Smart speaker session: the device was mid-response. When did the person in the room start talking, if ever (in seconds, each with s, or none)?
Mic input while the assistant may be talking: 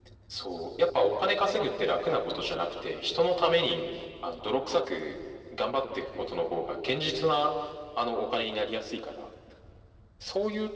none